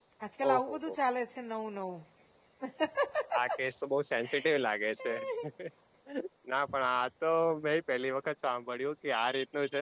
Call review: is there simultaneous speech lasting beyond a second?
No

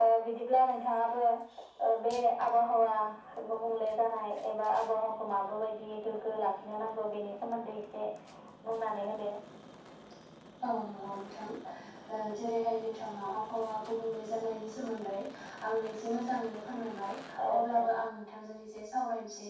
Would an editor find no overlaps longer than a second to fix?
Yes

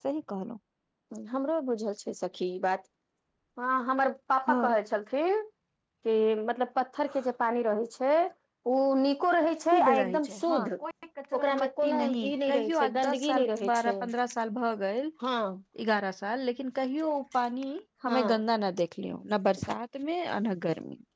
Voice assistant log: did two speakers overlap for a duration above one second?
Yes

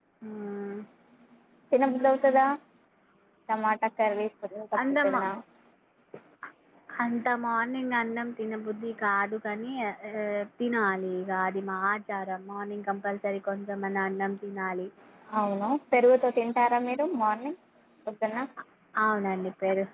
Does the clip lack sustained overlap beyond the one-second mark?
Yes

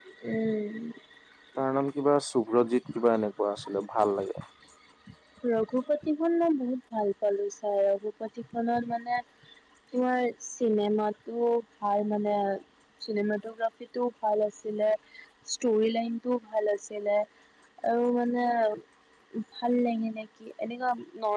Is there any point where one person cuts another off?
No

